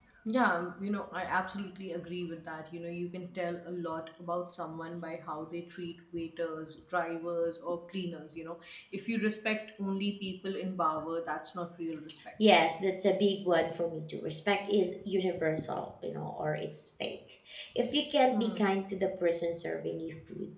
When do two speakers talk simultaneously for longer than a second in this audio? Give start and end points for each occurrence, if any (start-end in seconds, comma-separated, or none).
none